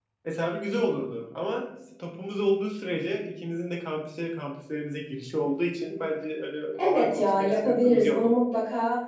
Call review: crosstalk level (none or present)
present